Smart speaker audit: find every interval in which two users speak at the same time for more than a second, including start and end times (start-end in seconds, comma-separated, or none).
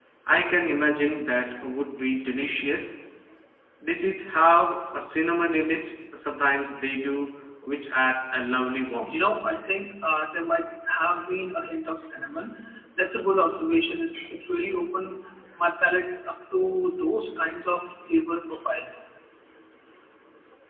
none